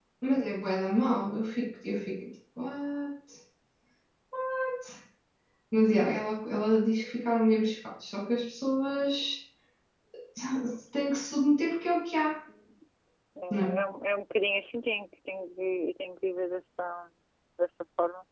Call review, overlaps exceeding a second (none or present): none